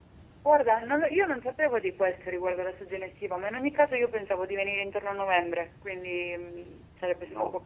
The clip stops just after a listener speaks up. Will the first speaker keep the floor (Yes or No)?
Yes